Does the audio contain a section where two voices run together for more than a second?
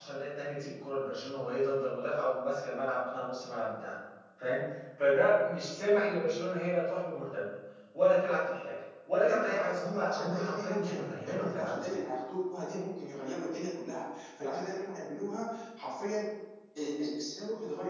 Yes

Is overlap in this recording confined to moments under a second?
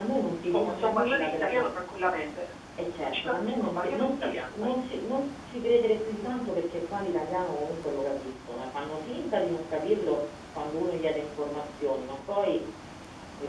No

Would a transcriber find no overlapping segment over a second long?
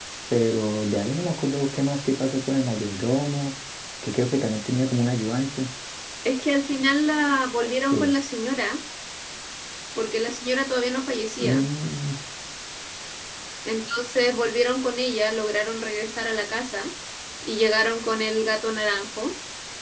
Yes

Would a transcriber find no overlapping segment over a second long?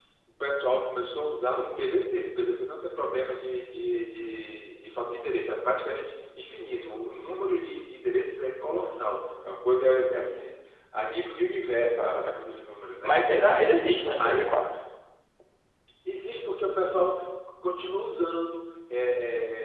Yes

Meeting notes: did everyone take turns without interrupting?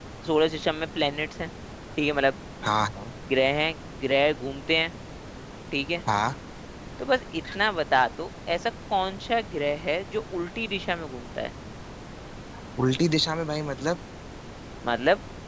Yes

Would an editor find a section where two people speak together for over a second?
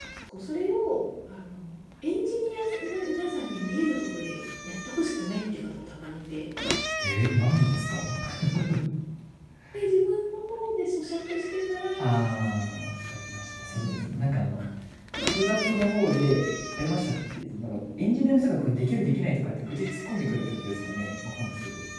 No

